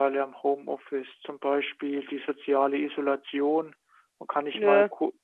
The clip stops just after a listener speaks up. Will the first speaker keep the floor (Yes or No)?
Yes